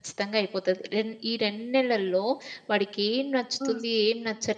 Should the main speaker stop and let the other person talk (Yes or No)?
No